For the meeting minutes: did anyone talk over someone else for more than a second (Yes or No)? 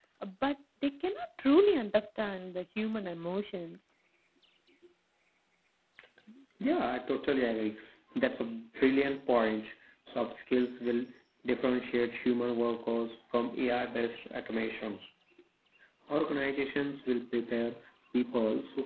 No